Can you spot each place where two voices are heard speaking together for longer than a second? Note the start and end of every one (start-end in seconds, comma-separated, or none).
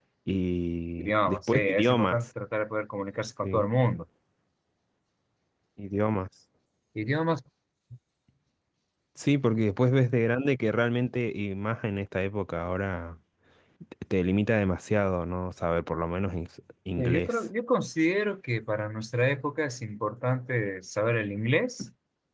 1.0-2.3